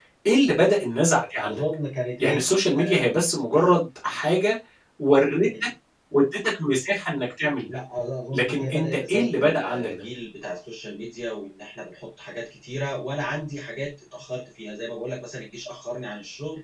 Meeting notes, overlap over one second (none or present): present